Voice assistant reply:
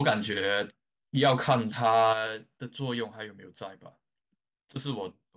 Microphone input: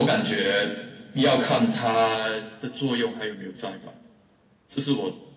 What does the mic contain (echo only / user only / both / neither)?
echo only